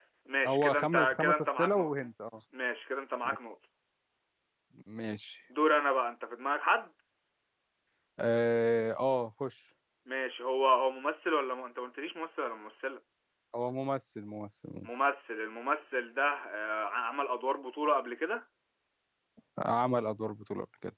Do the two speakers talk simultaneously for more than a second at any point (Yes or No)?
Yes